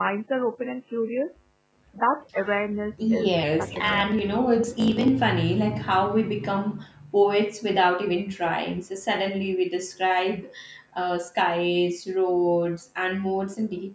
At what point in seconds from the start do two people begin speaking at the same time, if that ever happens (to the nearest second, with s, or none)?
3 s